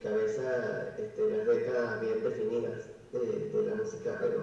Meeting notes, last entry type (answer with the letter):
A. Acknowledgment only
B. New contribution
A